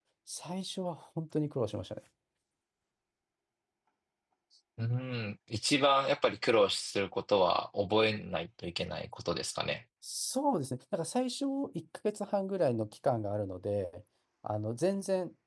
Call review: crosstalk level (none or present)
none